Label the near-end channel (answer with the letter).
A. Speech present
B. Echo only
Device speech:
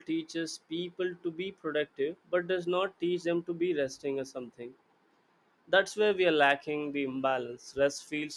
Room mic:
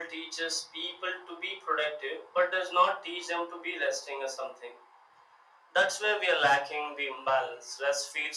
B